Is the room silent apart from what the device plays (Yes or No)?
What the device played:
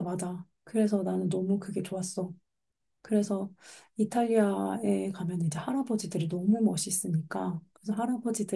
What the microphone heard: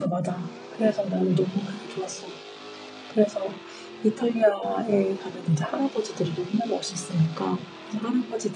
Yes